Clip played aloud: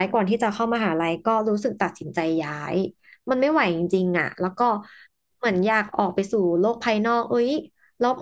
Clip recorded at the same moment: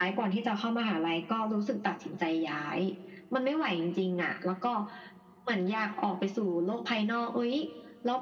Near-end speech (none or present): none